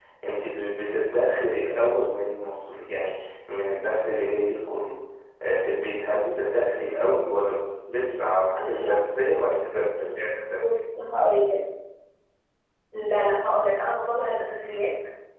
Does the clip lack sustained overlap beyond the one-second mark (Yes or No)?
Yes